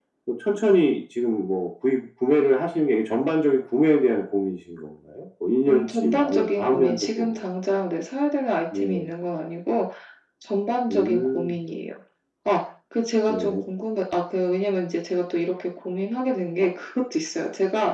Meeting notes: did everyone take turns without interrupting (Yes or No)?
No